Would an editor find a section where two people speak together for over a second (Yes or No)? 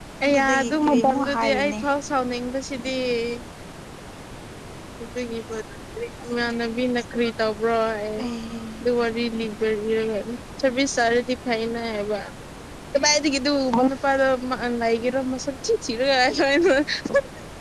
Yes